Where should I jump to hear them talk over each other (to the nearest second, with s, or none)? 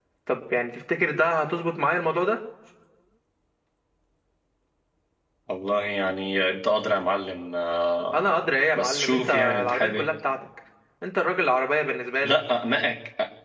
8 s